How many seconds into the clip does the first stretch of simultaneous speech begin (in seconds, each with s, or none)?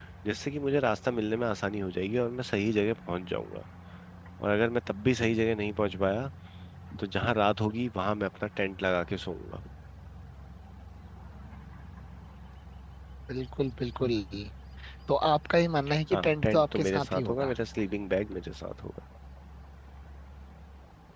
16.1 s